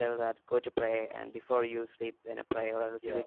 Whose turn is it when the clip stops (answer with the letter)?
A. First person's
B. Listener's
A